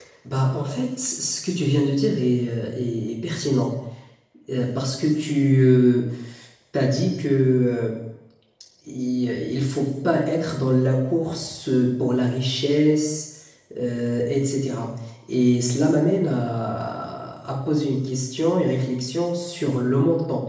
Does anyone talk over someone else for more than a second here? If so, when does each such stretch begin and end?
none

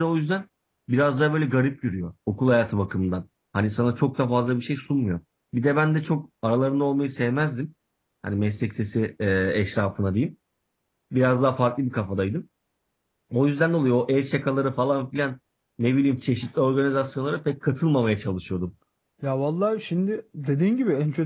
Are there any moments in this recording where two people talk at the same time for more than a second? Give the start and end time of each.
none

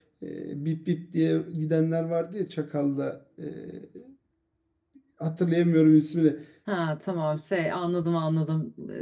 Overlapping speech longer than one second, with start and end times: none

